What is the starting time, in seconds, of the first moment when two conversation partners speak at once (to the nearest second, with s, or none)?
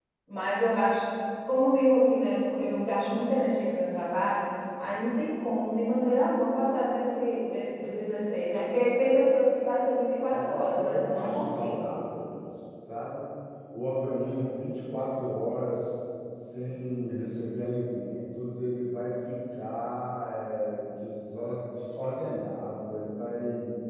10 s